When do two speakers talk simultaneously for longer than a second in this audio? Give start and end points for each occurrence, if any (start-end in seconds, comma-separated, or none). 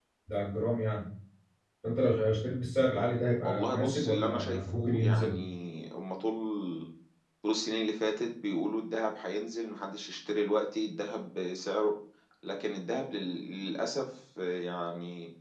3.4-5.4